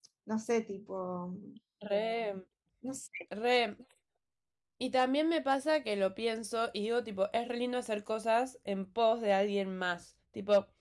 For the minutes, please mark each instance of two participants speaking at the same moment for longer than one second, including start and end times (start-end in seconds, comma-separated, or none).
none